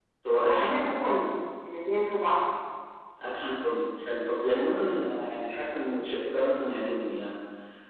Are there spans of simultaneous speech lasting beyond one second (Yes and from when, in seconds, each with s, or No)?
No